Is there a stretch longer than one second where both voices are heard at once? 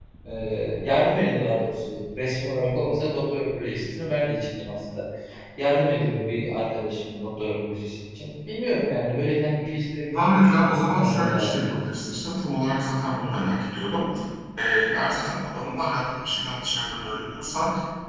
Yes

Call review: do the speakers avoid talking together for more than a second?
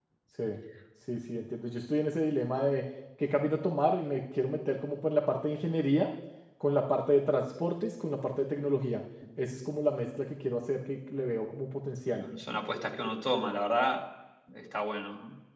Yes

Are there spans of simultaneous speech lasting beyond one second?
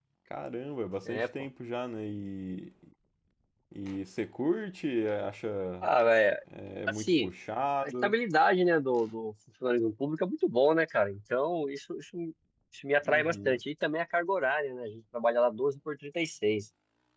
No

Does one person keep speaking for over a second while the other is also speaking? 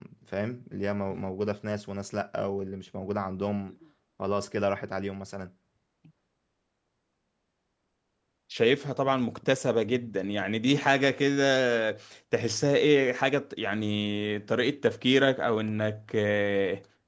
No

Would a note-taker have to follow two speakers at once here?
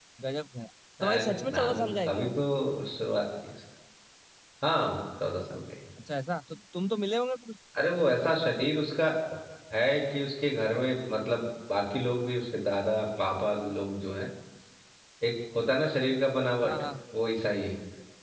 Yes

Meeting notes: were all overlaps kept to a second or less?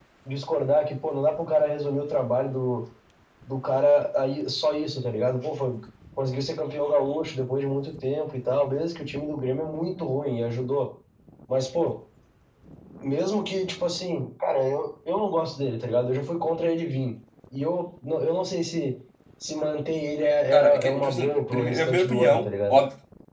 No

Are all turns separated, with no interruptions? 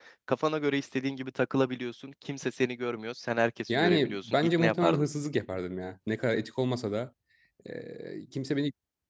No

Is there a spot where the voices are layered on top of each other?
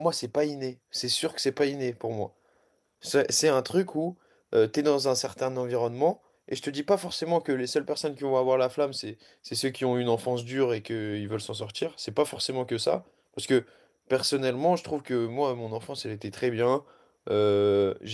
No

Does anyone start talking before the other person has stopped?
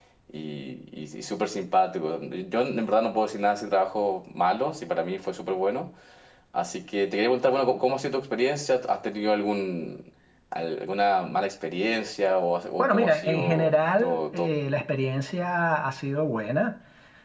Yes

